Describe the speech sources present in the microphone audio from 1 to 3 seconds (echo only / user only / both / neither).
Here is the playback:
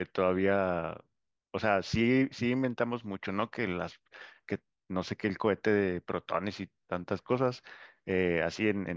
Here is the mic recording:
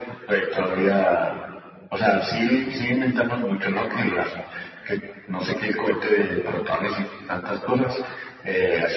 echo only